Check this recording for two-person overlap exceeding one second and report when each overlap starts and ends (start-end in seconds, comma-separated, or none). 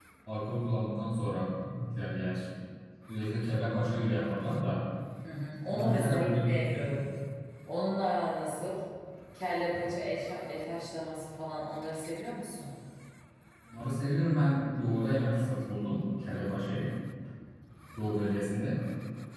5.7-7.0